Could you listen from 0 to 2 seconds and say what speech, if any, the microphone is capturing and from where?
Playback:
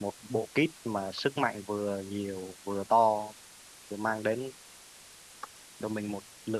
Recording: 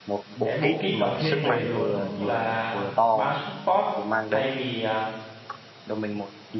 both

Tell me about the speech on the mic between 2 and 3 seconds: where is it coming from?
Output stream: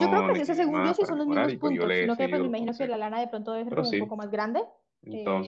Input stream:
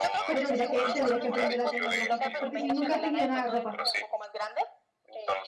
both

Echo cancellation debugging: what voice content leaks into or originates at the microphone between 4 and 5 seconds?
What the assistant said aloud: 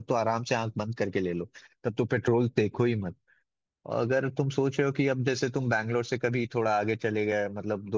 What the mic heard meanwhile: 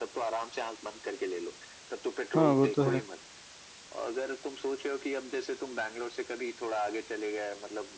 echo only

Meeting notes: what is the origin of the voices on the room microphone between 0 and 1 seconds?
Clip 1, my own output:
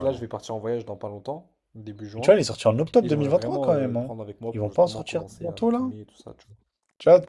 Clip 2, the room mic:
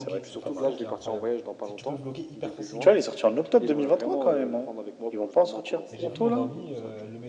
both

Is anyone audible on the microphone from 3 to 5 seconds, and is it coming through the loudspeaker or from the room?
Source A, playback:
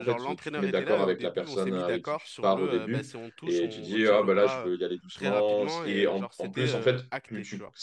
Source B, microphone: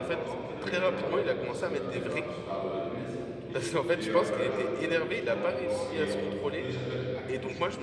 both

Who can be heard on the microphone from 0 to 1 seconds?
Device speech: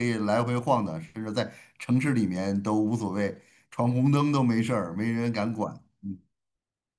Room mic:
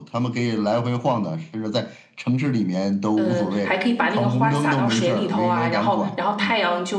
echo only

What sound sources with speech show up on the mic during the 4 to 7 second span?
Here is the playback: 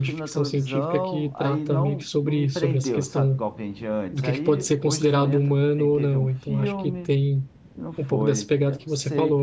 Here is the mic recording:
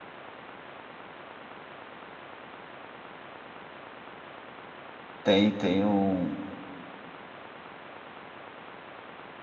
user only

